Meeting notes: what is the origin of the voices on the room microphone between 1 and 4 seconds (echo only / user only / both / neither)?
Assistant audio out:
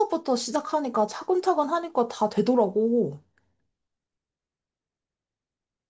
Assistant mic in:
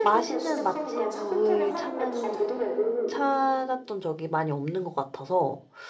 both